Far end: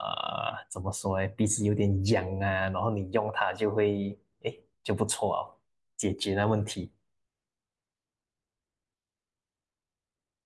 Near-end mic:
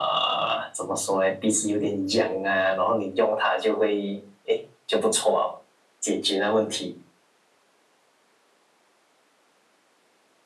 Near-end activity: none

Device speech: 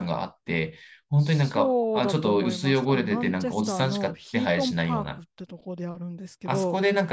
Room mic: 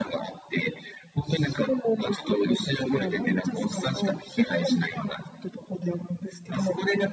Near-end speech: present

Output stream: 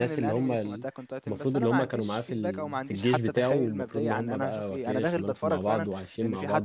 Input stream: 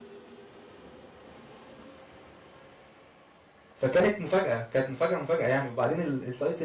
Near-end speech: present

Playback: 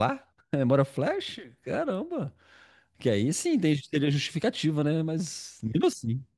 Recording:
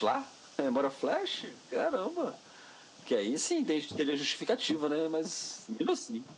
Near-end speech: none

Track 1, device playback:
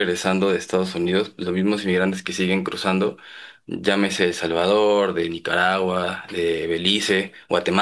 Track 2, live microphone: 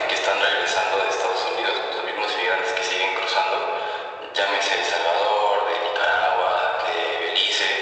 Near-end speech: none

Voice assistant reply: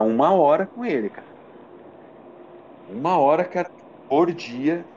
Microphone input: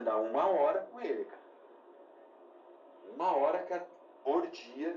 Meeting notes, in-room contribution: none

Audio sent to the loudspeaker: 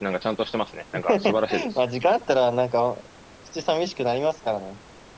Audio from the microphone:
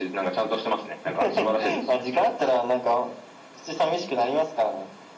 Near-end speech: none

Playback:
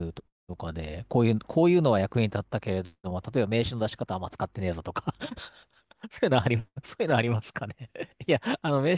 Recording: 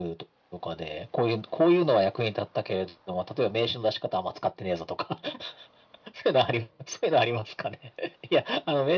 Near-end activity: none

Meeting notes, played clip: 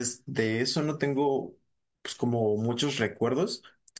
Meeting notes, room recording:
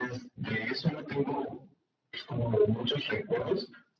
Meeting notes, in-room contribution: none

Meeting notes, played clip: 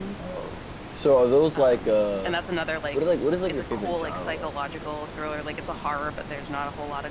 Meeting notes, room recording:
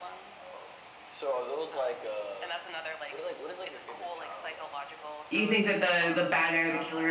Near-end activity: present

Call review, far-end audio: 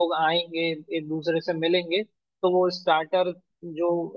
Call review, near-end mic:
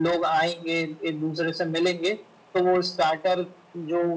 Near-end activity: none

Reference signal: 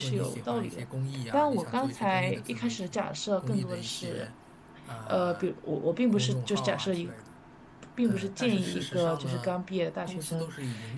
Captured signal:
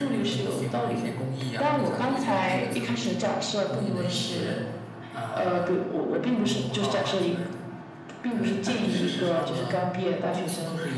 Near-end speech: none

